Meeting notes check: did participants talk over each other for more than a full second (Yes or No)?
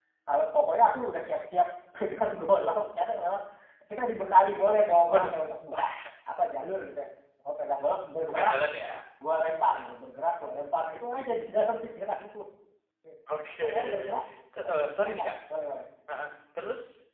No